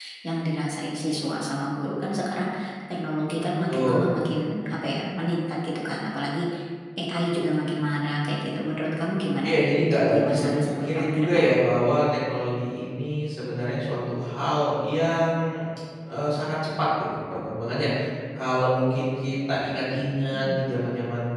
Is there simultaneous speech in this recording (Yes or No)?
Yes